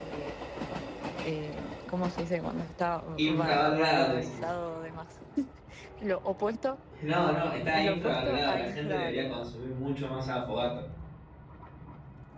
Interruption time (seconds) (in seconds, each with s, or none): 3.2 s